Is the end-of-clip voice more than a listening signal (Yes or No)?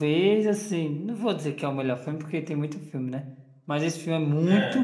No